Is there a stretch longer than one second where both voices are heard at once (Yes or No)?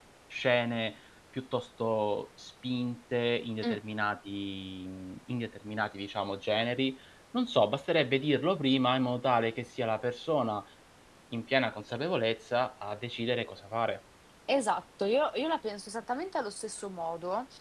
No